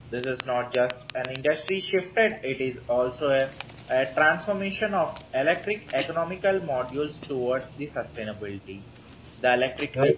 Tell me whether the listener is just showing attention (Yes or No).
Yes